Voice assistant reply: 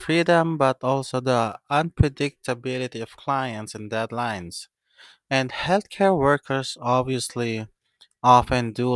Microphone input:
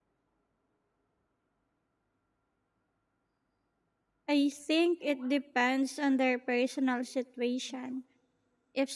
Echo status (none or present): none